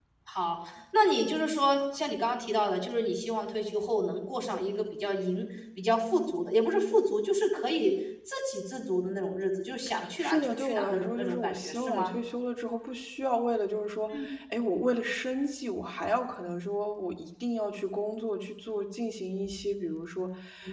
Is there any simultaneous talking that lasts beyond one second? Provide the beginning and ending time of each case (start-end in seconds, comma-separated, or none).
10.2-12.1